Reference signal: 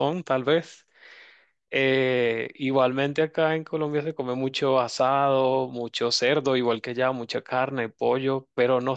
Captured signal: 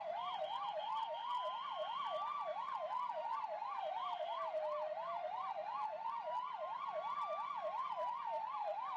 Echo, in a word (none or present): none